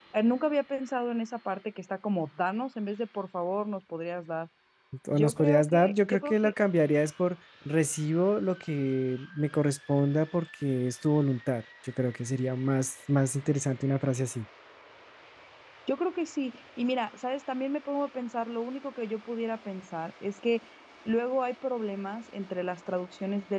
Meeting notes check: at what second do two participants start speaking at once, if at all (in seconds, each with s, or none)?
5.1 s